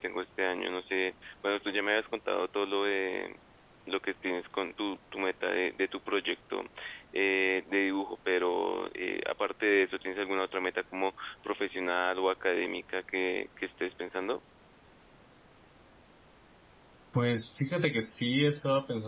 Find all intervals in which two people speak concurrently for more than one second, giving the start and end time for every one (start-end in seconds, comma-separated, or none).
none